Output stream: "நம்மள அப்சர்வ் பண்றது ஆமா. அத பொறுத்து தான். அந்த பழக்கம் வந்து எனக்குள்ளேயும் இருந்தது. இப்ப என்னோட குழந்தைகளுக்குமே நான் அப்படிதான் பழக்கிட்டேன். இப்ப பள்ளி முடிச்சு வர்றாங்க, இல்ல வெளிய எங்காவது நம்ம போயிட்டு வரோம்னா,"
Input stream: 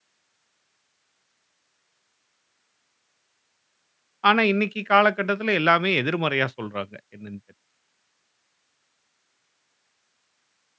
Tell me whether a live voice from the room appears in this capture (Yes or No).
Yes